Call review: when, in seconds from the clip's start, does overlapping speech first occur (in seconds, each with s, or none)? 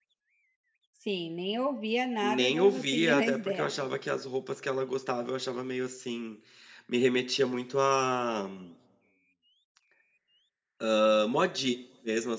2.2 s